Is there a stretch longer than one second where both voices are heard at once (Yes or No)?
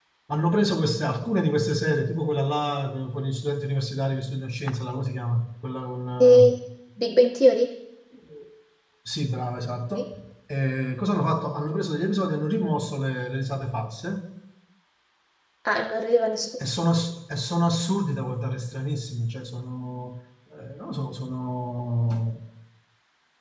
No